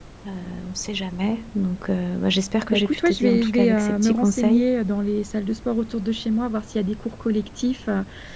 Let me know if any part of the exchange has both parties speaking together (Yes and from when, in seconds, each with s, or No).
Yes, from 2.7 s